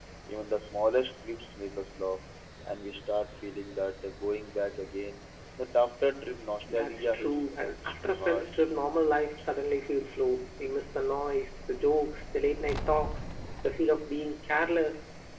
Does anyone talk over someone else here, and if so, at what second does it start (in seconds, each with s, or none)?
6.7 s